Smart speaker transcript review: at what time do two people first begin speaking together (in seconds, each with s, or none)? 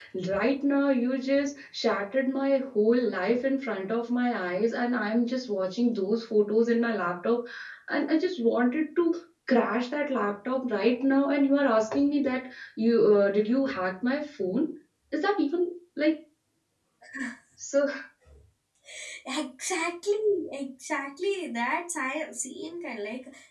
none